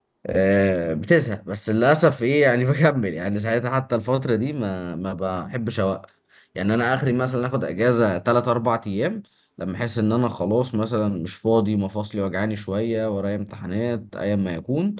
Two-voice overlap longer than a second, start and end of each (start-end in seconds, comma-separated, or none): none